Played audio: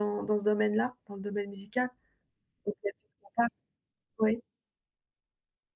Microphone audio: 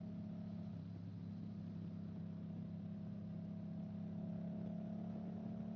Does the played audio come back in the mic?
No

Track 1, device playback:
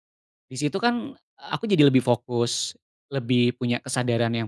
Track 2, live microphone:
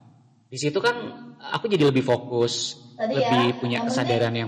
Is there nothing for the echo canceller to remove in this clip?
No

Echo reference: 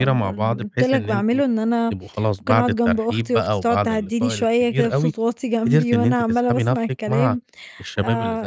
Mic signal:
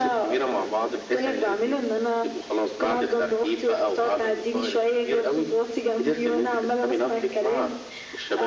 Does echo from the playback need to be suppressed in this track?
Yes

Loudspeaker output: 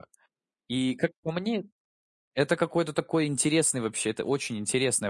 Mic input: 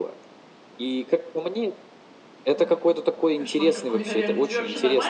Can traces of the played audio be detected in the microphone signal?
Yes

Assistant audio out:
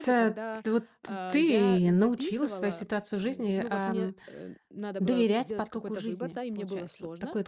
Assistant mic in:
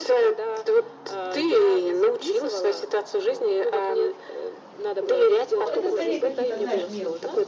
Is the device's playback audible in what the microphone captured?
Yes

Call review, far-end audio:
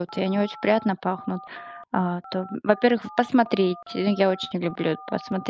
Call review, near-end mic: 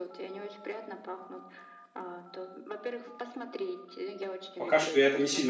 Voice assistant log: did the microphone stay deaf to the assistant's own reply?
No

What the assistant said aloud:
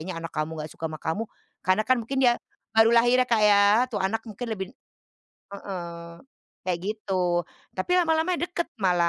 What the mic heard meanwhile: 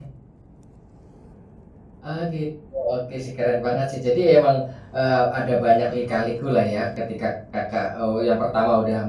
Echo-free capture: Yes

